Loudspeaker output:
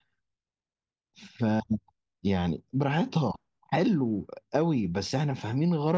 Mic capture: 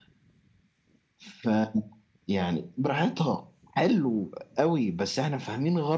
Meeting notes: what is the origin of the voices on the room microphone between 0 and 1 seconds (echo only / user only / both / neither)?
neither